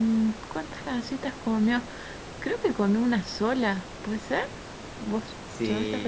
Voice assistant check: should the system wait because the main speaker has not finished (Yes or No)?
No